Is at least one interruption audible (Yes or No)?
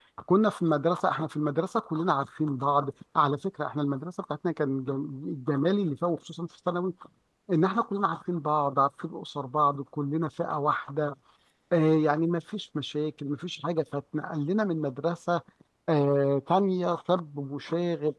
No